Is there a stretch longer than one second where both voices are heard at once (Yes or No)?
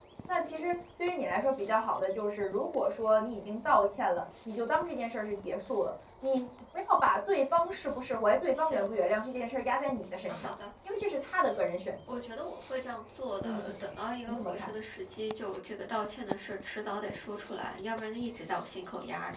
No